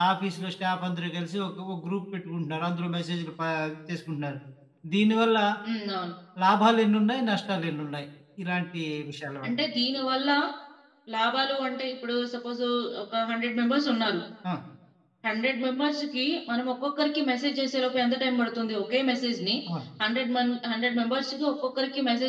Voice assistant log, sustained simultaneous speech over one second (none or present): none